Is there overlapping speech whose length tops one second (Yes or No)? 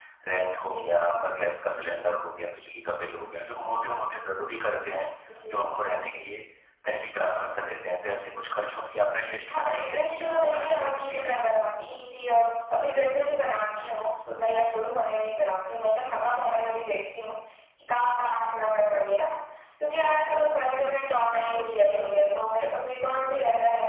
Yes